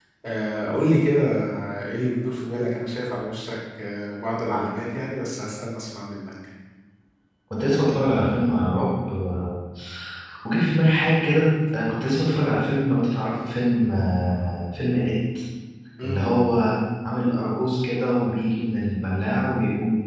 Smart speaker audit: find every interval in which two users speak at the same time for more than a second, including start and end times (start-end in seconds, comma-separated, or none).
none